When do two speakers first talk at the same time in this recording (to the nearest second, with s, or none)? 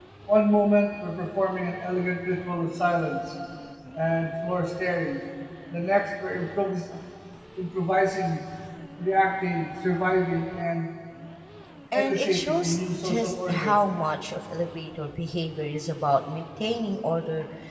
12 s